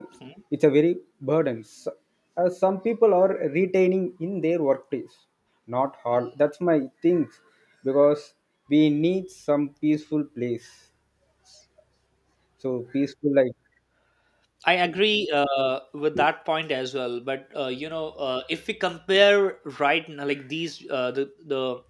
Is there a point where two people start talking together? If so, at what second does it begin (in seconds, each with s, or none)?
none